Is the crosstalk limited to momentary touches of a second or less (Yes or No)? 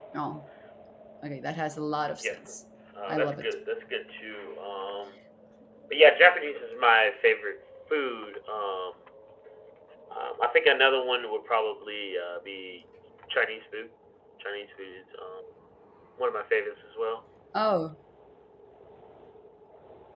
Yes